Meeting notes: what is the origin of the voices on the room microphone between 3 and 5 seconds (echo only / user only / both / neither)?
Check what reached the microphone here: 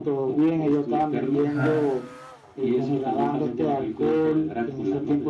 echo only